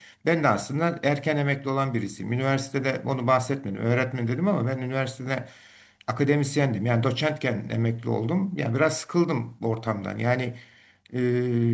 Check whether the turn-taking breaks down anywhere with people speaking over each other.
No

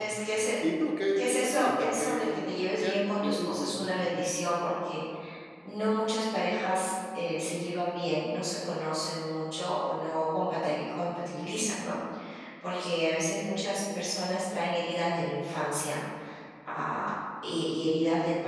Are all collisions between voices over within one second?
No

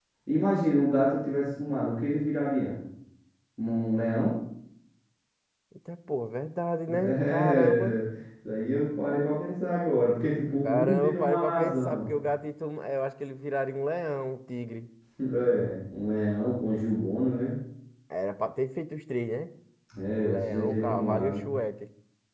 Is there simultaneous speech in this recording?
Yes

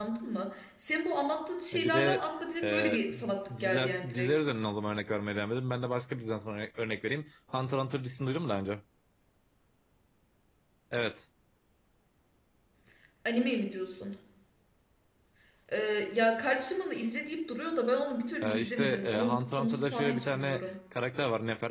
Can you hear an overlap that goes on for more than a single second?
Yes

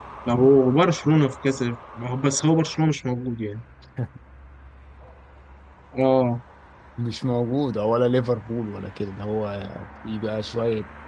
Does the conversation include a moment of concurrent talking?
No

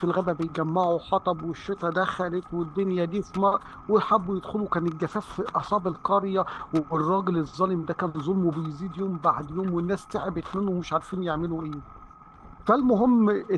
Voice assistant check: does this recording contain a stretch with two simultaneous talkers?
No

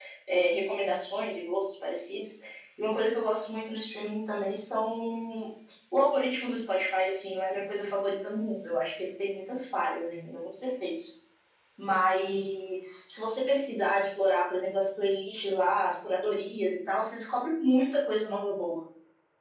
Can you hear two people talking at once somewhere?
No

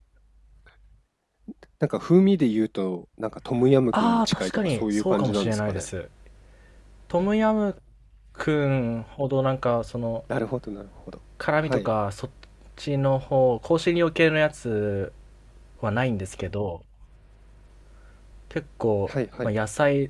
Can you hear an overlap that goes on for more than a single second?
Yes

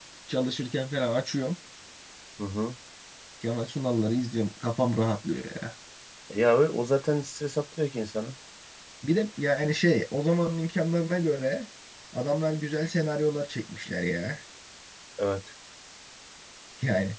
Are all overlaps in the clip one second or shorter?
Yes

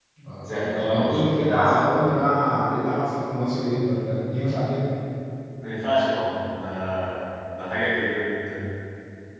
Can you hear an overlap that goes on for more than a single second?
Yes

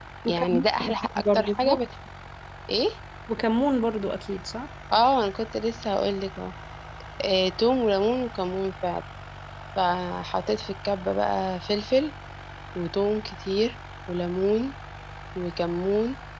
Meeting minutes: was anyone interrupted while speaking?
Yes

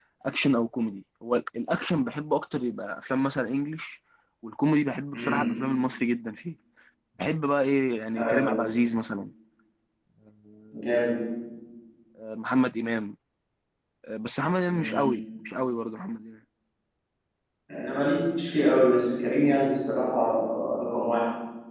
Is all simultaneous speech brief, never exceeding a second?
Yes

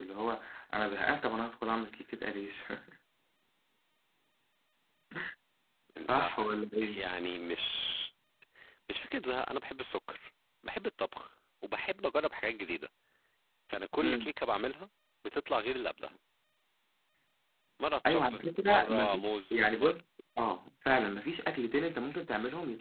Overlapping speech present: Yes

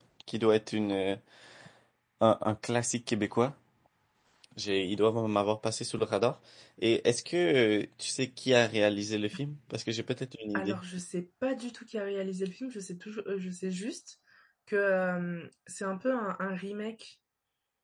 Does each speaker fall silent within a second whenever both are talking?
Yes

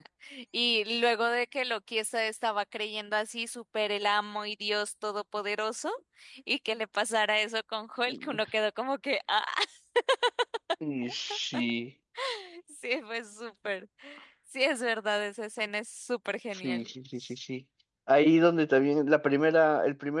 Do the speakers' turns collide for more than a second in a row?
No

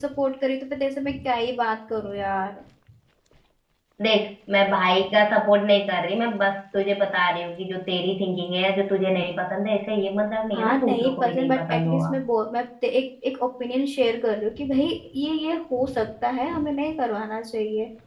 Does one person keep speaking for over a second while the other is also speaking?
Yes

